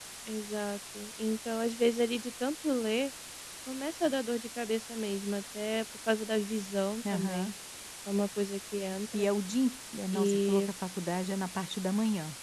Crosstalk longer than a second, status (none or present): none